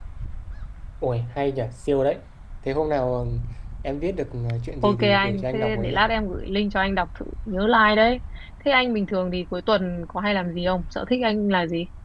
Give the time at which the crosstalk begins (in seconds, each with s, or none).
4.8 s